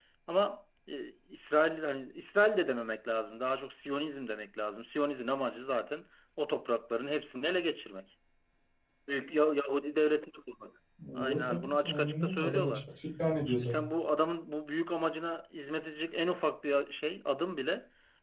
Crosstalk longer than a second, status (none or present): present